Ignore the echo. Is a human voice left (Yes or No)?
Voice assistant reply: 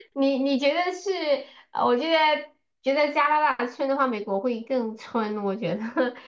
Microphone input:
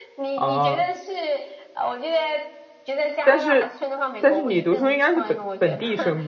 Yes